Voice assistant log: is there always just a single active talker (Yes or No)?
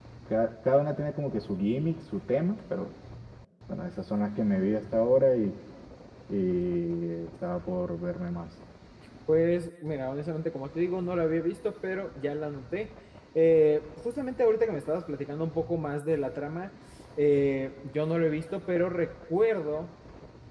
Yes